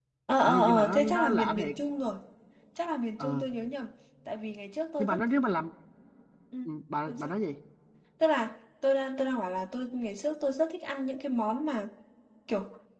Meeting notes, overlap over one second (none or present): present